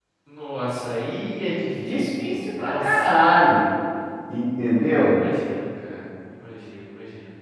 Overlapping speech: Yes, from 1.8 s

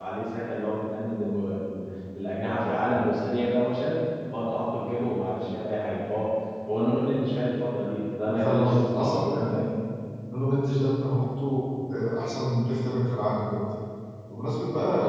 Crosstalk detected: Yes, from 8.3 s

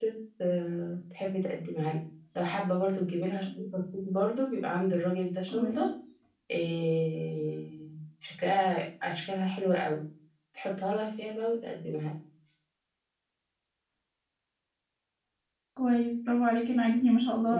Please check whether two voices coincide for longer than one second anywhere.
No

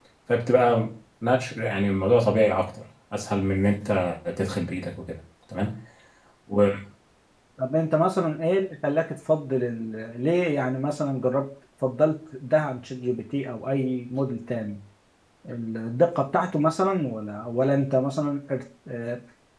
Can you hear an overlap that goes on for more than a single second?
No

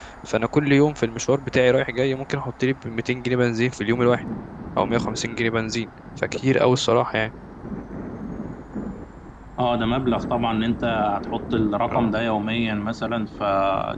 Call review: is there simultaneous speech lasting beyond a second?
No

